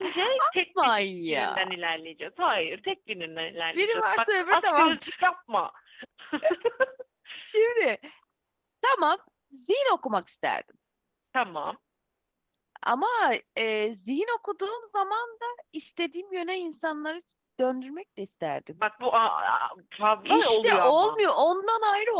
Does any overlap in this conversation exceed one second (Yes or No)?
Yes